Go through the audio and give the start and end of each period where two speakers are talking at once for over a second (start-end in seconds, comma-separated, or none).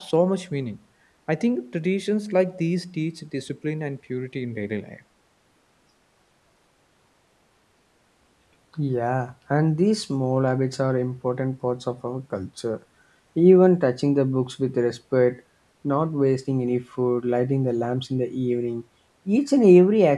none